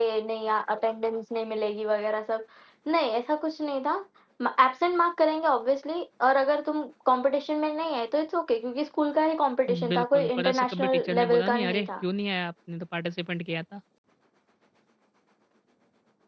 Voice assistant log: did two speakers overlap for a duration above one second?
Yes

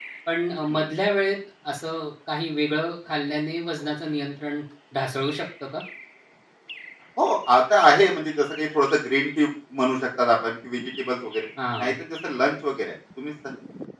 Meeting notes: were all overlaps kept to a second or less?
Yes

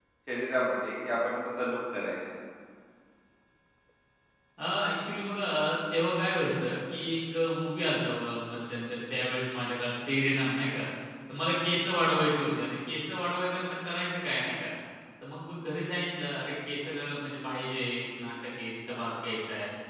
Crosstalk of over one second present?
No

